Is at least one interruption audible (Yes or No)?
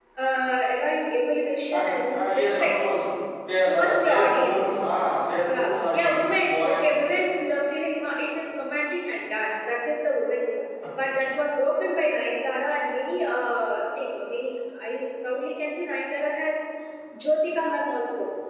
Yes